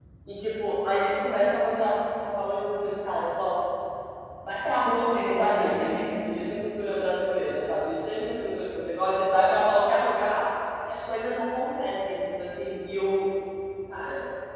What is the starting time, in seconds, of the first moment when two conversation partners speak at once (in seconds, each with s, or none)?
5.1 s